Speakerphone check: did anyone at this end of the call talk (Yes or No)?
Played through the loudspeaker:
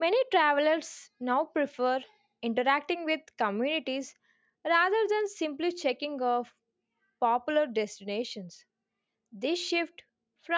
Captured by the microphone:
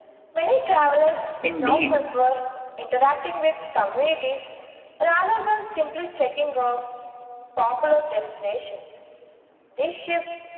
Yes